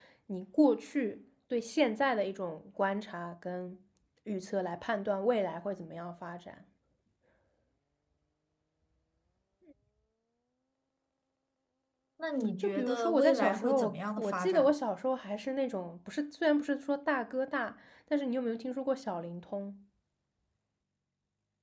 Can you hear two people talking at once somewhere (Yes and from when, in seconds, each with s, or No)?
Yes, from 12.6 s